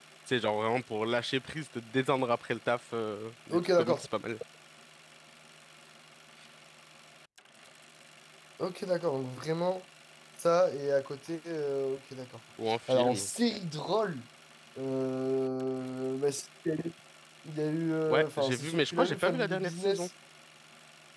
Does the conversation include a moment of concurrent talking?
Yes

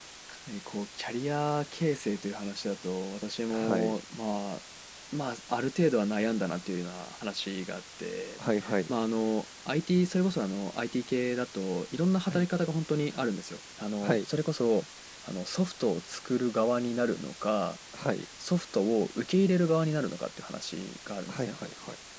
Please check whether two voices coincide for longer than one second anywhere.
No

